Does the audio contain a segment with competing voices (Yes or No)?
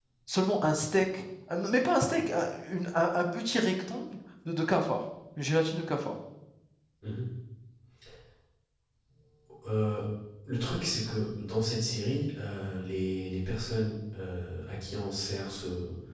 No